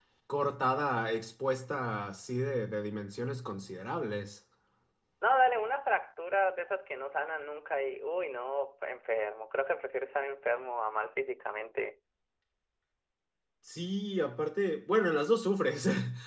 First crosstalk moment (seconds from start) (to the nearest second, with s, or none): none